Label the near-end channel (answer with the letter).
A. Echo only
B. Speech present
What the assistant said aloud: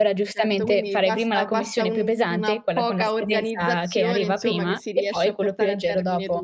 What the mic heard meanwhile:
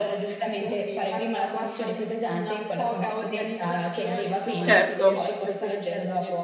B